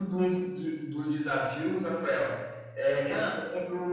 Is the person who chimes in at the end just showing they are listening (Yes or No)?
Yes